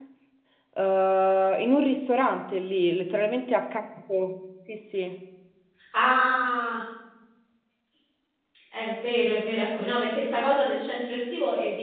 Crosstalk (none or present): none